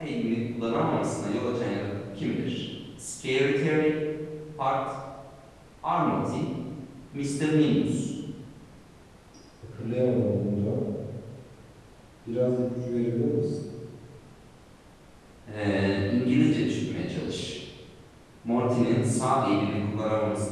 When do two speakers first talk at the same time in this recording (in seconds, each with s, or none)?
none